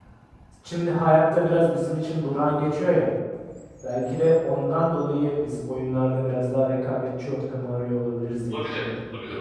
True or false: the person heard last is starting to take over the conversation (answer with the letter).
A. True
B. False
A